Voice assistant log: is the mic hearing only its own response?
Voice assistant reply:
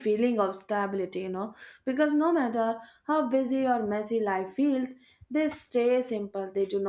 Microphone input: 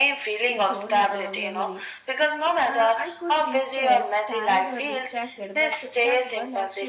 No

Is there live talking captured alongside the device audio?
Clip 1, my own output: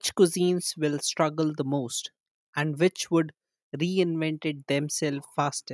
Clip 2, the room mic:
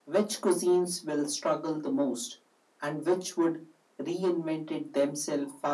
No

